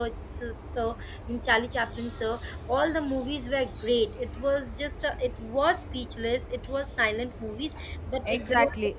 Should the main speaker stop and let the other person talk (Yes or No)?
Yes